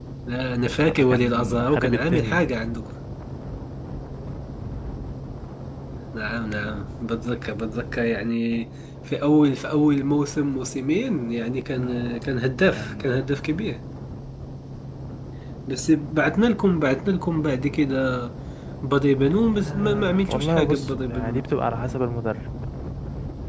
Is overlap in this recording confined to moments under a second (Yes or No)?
No